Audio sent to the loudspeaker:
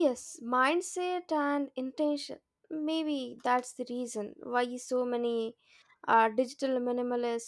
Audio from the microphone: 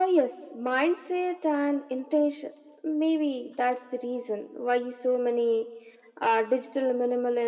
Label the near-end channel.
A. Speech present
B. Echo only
B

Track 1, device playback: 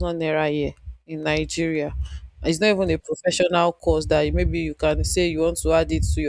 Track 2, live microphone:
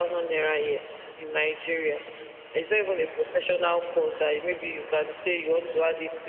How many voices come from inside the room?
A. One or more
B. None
B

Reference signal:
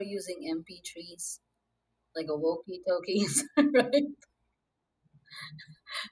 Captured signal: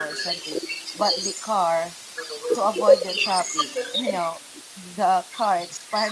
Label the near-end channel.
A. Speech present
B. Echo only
A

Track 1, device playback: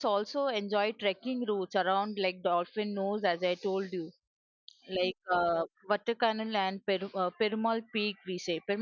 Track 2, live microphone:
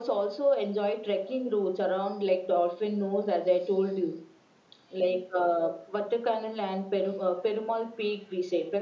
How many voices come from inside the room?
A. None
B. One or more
A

